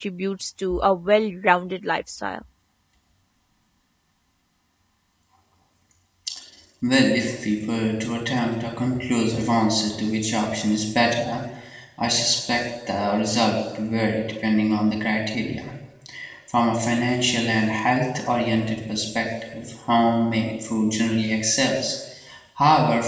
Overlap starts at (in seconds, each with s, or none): none